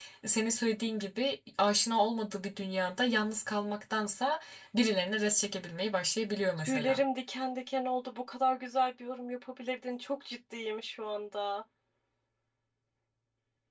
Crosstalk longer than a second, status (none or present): none